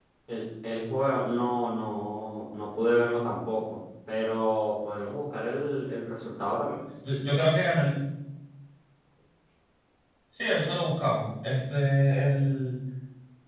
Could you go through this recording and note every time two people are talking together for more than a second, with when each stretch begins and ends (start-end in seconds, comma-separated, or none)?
none